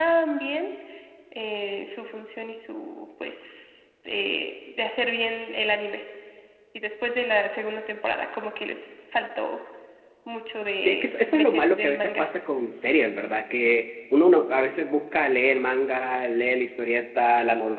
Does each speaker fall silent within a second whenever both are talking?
No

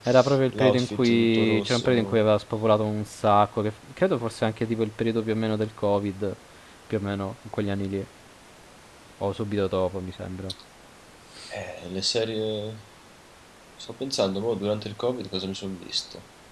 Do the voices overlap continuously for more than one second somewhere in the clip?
Yes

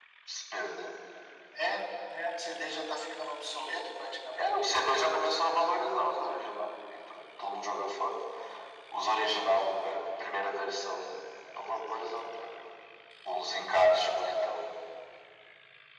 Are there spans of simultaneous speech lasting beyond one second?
No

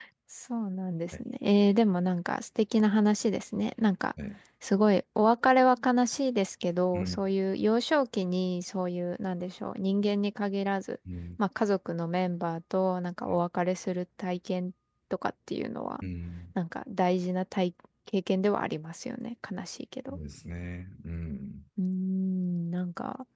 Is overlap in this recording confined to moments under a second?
Yes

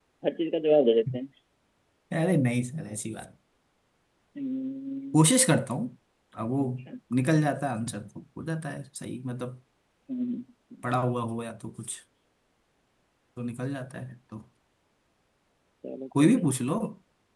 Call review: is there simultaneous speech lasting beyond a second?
No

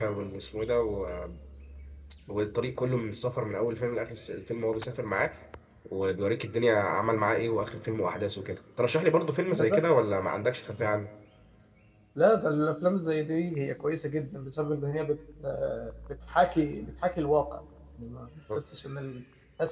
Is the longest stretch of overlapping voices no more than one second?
Yes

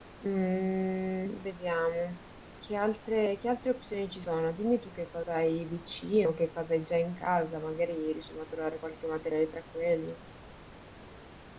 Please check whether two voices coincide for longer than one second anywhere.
No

